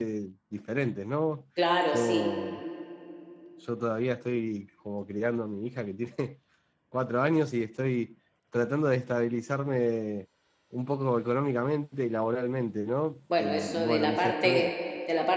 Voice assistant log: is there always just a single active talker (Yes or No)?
No